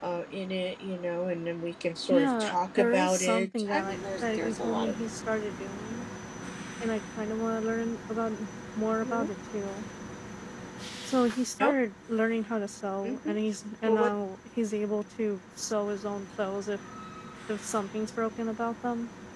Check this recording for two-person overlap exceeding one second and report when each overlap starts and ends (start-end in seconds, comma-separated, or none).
2.1-4.9